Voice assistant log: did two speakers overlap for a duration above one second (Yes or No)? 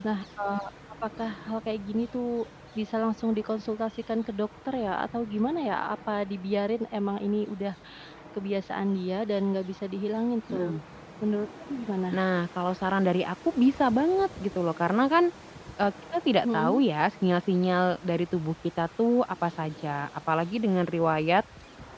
No